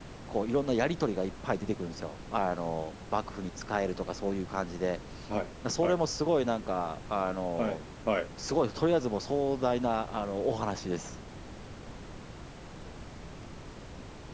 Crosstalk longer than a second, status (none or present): none